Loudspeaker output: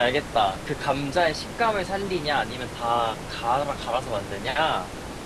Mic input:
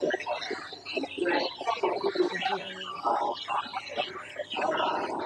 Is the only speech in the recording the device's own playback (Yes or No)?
No